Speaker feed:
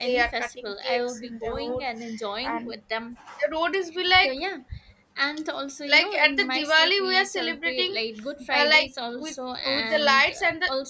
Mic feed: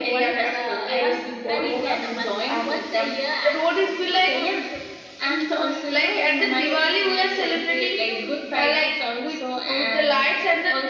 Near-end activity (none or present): present